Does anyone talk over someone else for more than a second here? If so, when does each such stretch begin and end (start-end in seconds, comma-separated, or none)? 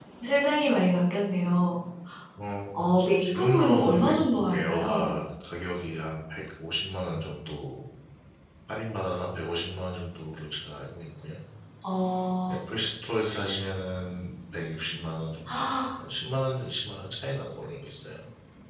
2.7-5.1